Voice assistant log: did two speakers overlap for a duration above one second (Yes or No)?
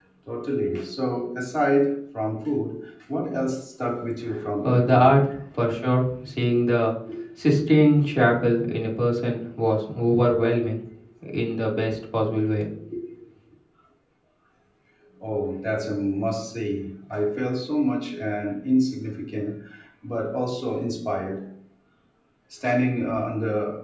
No